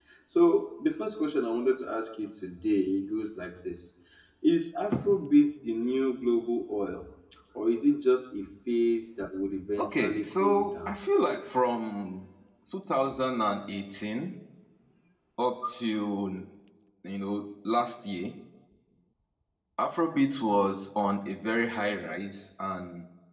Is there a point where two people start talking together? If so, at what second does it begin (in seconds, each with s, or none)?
9.8 s